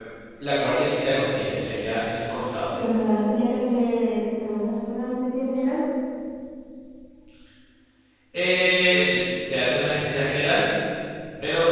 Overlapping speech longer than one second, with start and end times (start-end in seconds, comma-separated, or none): none